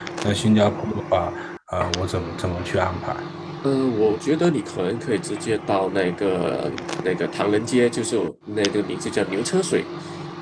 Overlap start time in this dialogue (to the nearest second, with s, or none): none